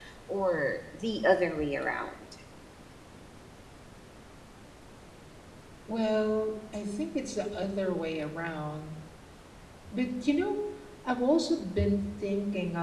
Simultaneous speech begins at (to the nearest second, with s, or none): none